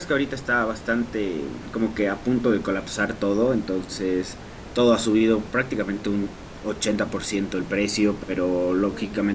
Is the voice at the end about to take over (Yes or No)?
No